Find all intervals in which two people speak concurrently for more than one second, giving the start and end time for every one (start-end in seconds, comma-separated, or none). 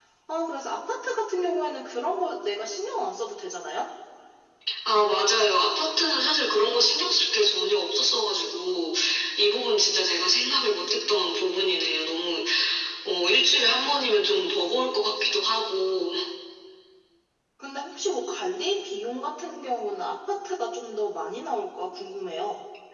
none